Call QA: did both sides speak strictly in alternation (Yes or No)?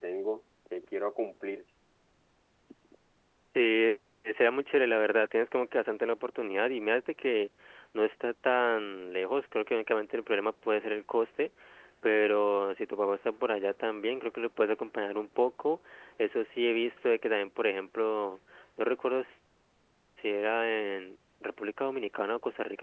Yes